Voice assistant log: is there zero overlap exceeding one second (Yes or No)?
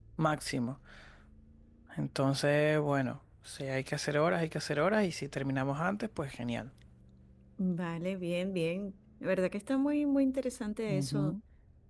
Yes